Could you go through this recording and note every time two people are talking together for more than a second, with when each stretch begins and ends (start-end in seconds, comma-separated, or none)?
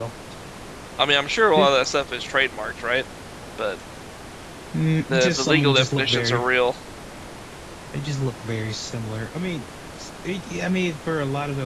5.1-6.5